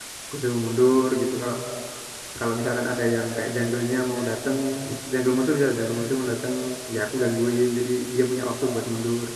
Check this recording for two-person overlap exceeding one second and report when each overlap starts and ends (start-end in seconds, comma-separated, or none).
none